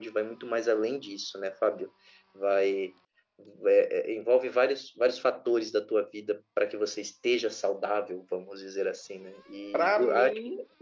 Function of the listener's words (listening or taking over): taking over